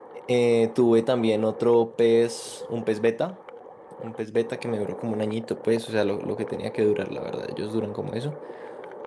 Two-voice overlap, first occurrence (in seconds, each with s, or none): none